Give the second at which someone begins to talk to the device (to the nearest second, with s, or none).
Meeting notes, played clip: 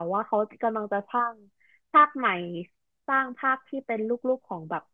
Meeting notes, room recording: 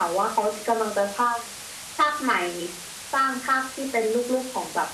none